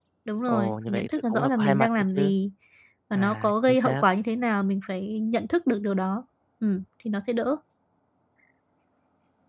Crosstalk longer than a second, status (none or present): present